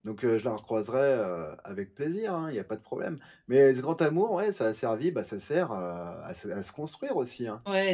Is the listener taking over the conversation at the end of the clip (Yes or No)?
Yes